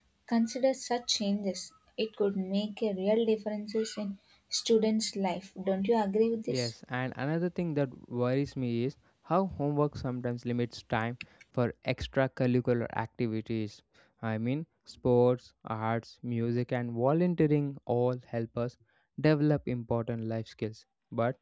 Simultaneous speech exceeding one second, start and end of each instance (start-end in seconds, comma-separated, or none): none